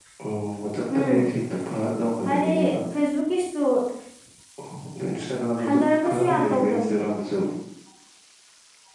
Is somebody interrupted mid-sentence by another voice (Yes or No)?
Yes